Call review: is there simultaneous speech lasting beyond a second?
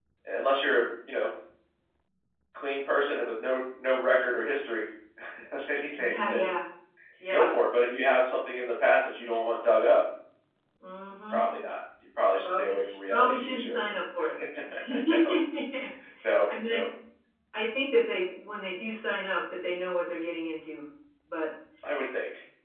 Yes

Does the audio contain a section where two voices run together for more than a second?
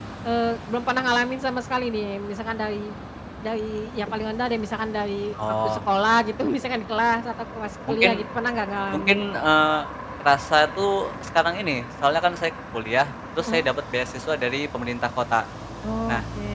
No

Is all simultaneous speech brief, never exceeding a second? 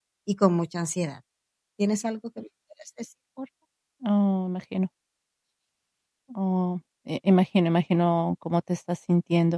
Yes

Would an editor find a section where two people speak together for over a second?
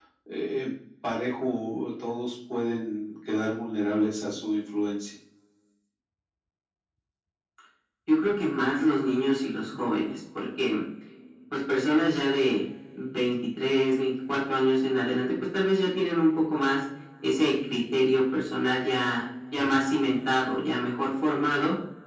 No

